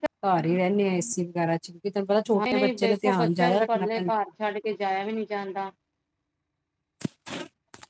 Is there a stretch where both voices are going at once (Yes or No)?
Yes